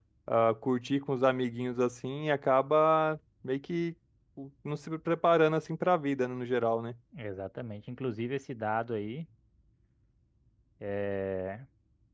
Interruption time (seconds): none

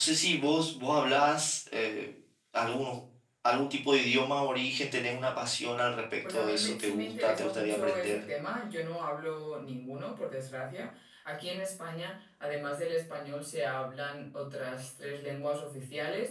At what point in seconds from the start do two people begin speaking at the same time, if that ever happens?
6.2 s

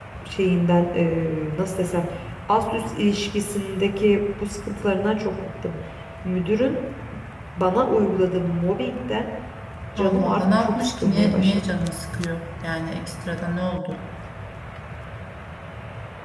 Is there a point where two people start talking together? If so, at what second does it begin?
10.0 s

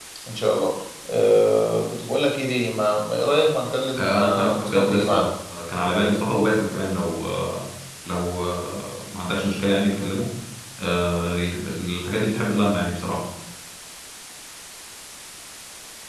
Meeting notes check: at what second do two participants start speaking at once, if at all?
4.0 s

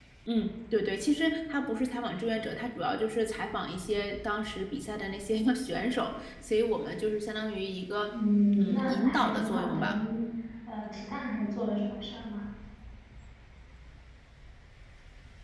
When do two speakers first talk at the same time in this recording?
8.6 s

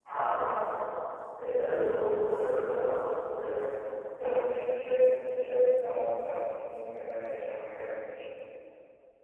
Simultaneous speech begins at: none

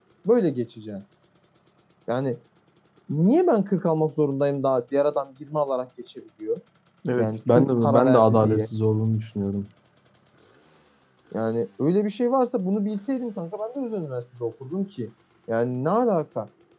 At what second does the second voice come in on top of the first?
7.2 s

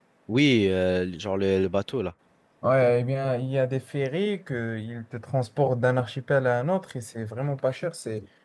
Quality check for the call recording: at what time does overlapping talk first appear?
none

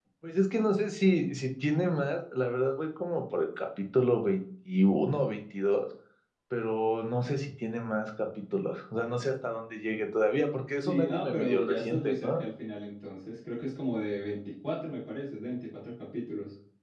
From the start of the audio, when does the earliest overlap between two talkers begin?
10.8 s

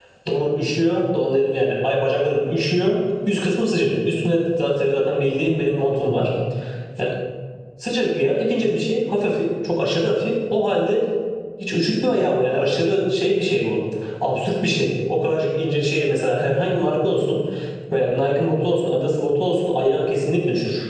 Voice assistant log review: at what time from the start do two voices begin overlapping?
none

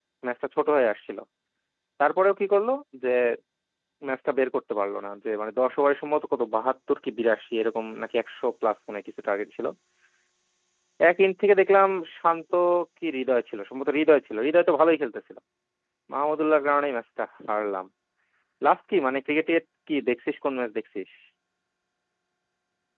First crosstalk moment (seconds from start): none

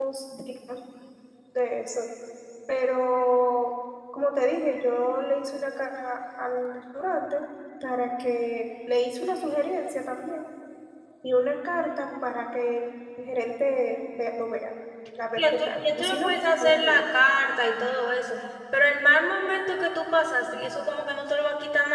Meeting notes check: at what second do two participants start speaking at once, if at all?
15.4 s

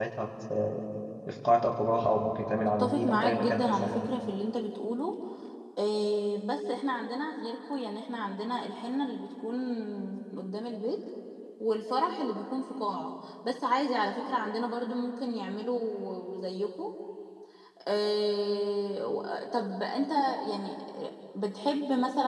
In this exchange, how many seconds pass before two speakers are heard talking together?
2.8 s

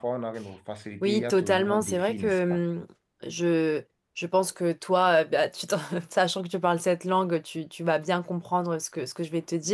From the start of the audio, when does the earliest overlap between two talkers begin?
1.0 s

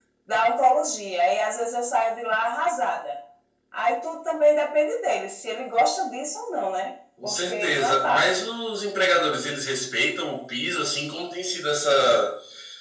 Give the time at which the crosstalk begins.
7.2 s

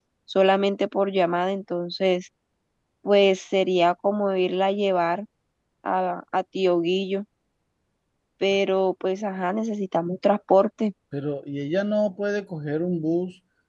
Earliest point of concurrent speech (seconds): none

